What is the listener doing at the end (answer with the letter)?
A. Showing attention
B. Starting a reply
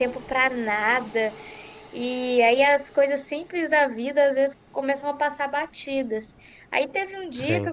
A